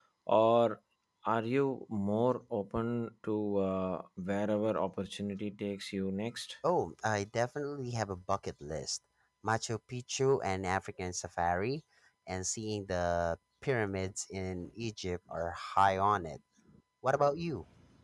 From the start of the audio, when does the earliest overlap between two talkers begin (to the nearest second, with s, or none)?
none